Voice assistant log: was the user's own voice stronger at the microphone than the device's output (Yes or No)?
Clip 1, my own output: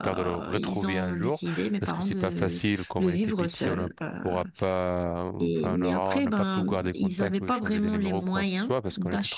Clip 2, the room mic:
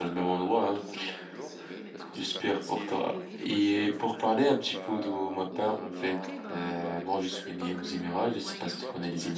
Yes